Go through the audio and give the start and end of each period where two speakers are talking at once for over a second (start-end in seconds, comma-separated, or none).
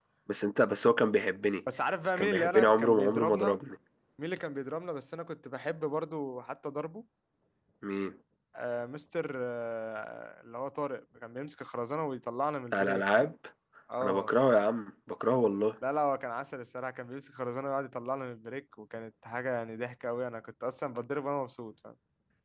2.2-3.6